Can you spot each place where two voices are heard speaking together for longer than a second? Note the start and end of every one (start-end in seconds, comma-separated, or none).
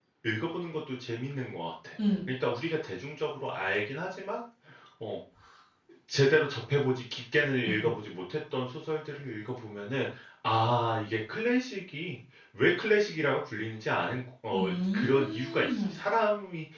14.5-15.9